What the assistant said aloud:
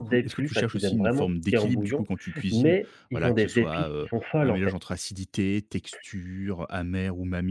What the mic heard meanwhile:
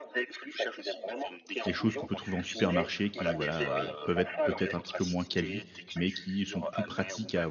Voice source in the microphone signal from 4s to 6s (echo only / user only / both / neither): both